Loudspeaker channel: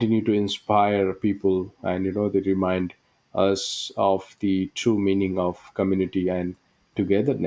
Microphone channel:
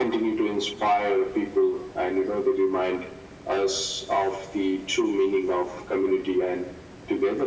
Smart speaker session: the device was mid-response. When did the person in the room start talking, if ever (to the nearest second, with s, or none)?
none